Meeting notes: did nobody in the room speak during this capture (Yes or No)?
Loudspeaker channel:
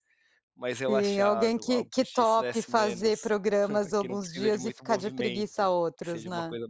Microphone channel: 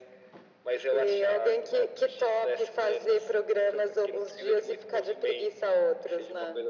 Yes